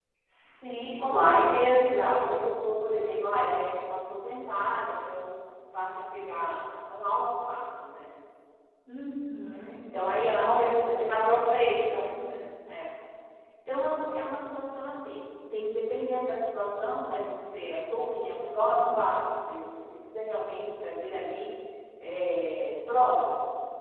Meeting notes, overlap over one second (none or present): present